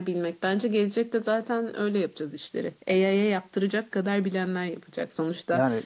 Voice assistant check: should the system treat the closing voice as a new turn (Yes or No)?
No